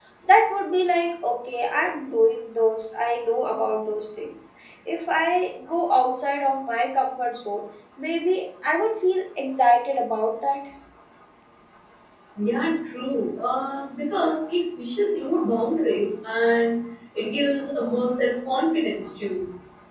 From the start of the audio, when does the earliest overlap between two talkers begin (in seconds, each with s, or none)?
none